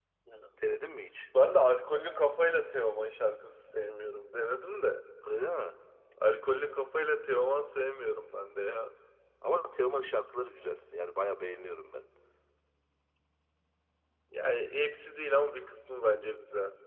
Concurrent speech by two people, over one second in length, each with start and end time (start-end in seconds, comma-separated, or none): none